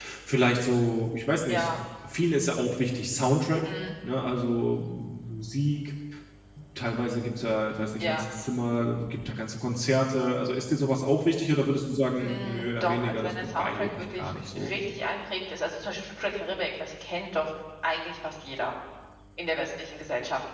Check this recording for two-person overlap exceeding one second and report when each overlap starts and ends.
12.2-14.7

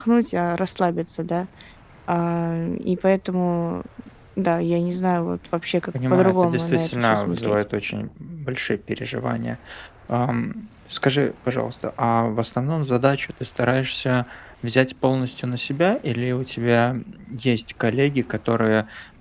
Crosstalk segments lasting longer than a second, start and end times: 6.1-7.5

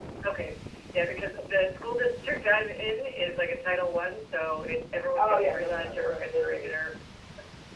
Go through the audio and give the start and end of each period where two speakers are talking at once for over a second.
5.2-6.7

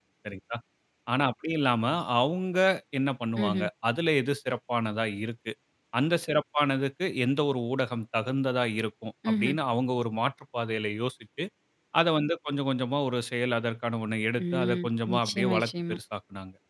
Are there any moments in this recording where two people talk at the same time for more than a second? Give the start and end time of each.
14.5-16.0

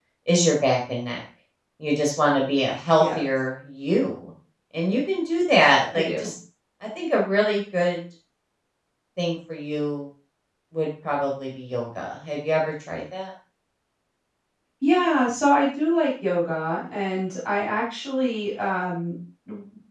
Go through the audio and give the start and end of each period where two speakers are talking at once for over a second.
none

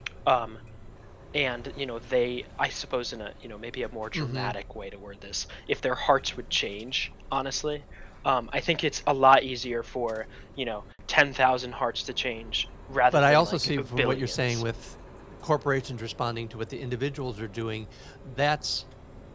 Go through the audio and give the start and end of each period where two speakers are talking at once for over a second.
13.1-14.6

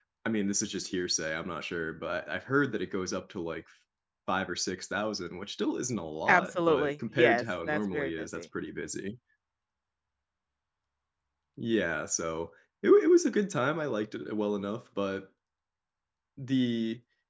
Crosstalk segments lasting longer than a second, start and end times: 6.3-8.4

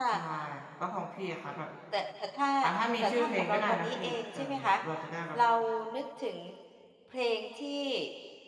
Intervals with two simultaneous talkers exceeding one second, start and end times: 3.0-4.4

